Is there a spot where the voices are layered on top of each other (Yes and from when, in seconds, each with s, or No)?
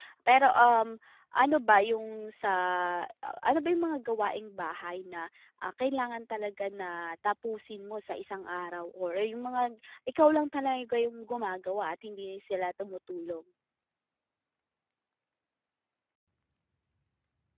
No